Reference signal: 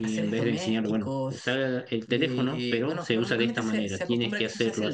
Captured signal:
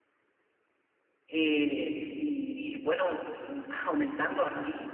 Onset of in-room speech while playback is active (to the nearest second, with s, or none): 1 s